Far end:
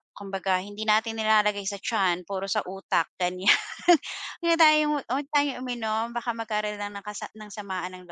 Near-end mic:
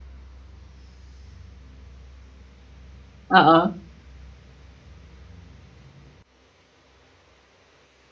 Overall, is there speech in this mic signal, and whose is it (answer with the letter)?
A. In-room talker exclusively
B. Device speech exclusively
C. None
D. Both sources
A